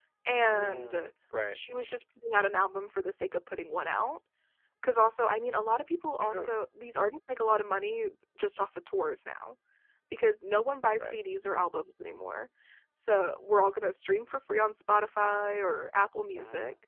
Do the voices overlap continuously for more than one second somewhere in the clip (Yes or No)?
No